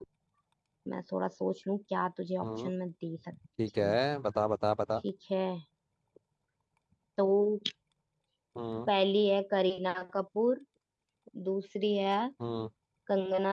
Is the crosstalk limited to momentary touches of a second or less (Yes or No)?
Yes